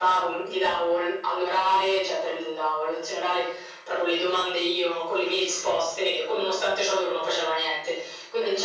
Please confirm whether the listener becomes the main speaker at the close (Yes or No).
No